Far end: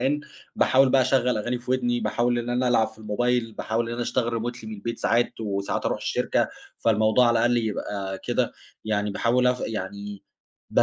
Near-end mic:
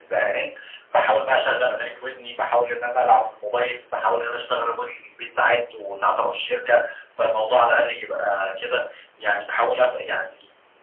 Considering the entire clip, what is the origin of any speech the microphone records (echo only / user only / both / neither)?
echo only